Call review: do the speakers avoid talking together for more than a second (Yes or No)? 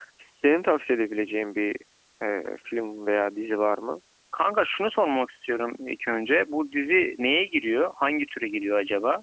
Yes